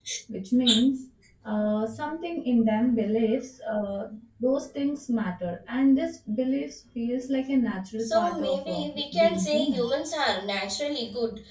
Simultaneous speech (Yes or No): Yes